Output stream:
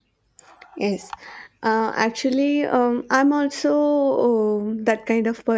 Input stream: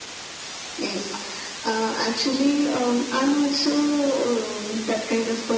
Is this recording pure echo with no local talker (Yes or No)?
Yes